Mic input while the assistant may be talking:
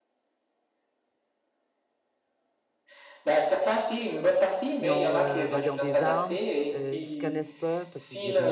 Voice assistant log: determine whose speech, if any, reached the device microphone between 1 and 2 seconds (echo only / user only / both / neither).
neither